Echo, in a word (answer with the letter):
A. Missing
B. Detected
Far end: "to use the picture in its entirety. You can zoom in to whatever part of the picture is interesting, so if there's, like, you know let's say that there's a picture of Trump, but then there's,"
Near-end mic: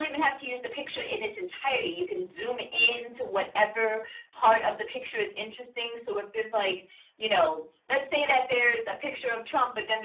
B